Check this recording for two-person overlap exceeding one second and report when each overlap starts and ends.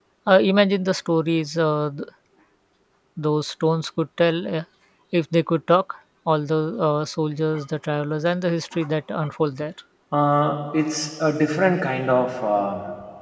none

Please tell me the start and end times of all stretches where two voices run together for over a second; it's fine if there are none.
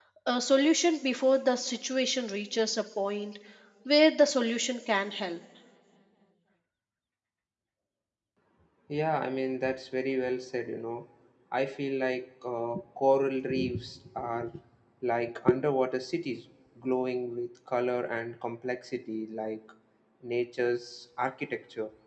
none

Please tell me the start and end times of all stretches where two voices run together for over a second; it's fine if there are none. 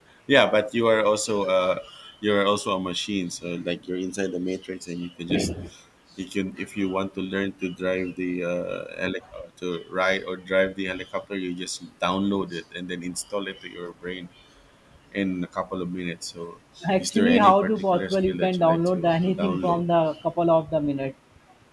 17.0-19.9

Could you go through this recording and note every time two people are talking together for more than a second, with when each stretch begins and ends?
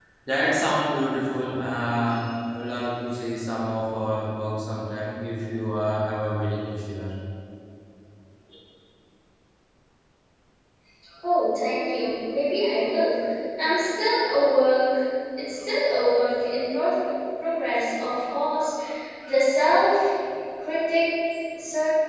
none

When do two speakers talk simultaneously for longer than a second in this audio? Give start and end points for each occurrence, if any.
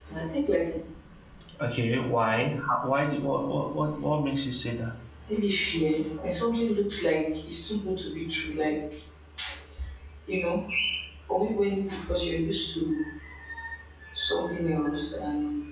none

